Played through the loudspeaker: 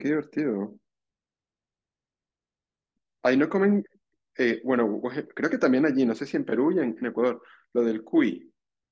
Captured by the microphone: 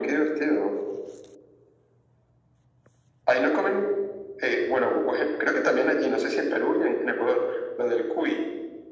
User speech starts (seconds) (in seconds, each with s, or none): none